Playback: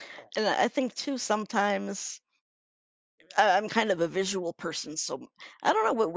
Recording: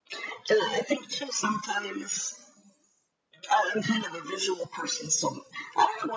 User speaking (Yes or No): No